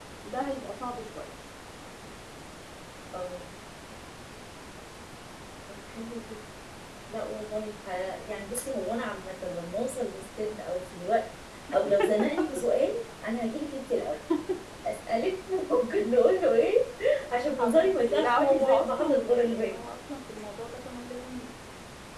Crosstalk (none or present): present